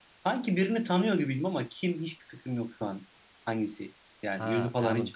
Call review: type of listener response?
taking over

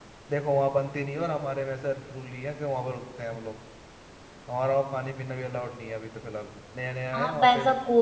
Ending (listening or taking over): taking over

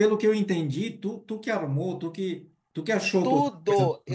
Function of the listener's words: taking over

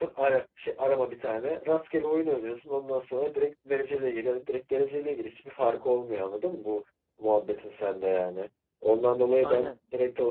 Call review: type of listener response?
listening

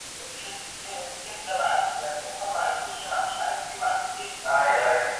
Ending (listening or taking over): listening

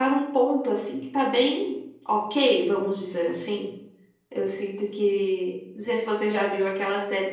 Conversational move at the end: listening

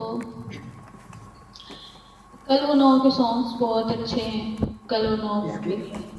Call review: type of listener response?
listening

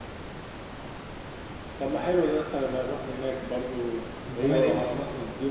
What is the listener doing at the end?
listening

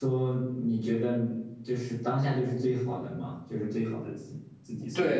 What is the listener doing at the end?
taking over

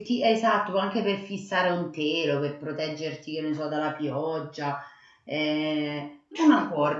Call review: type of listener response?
listening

